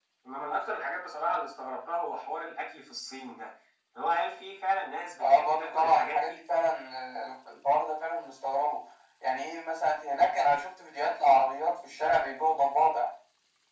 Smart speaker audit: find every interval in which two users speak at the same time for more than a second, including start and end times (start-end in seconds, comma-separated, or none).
5.2-6.4